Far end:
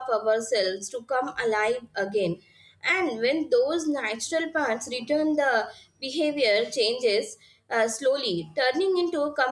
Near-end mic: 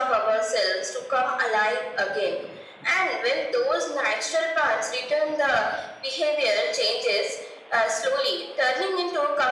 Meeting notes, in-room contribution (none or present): none